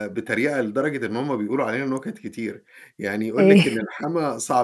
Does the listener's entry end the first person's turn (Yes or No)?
No